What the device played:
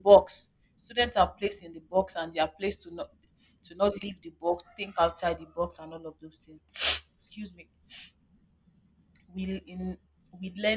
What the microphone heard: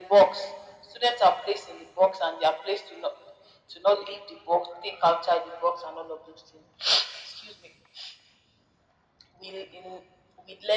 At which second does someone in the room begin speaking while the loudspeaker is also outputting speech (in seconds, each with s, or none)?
none